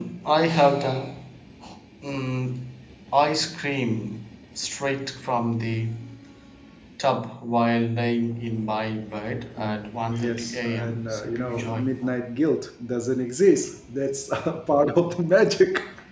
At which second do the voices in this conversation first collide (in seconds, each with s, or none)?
9.6 s